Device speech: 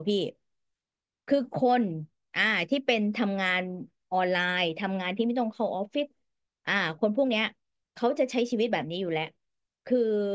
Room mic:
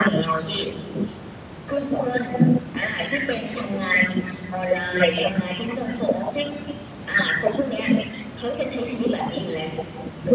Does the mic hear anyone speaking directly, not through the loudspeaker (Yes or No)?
No